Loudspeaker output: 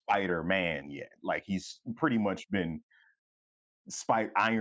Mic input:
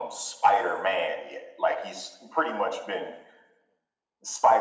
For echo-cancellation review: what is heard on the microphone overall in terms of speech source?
echo only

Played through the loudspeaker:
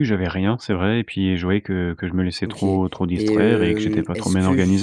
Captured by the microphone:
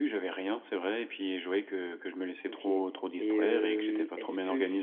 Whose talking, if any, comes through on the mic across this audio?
echo only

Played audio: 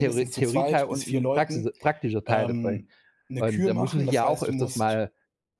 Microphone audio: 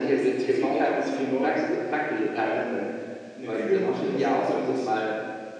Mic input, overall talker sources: echo only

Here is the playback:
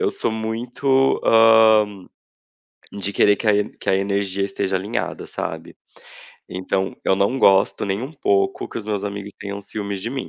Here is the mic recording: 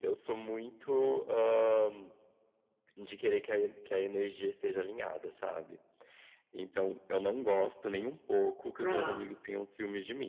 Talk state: both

